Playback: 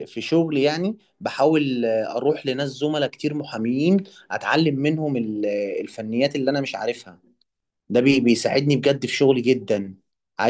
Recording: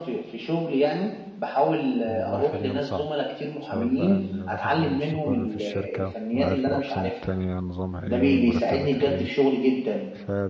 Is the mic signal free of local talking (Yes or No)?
No